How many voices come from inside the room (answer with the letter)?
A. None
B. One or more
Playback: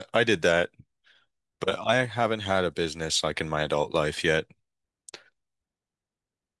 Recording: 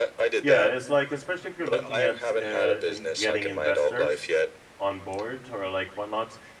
B